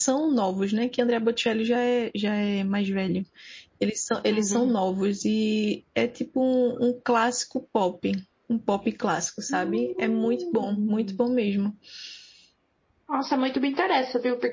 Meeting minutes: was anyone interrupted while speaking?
Yes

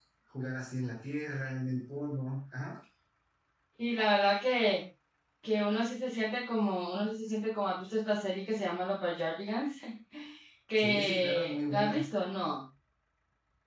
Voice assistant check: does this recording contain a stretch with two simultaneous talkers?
Yes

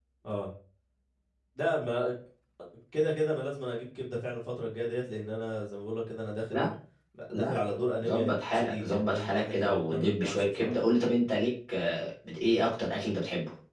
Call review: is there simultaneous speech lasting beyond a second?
Yes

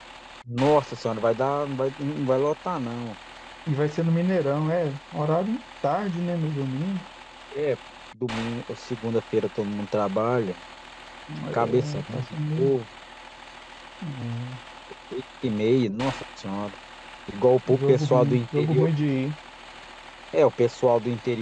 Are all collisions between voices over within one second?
No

